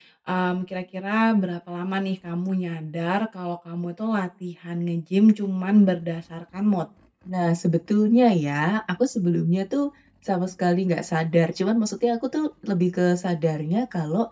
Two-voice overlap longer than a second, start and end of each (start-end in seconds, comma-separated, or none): none